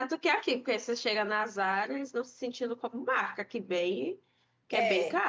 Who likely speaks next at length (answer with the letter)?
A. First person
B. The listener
B